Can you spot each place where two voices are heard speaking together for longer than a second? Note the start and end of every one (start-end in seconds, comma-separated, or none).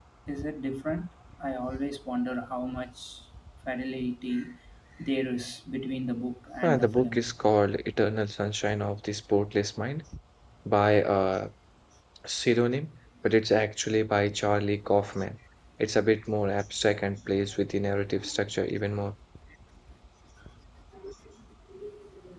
none